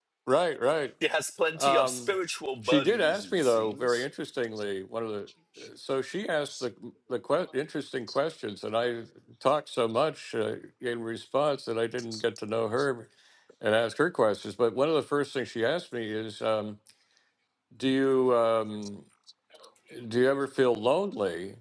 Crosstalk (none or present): present